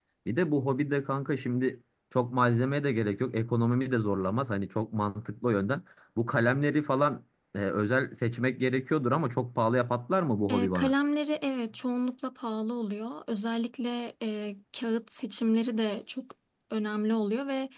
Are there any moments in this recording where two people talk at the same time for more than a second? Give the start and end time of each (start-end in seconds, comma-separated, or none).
none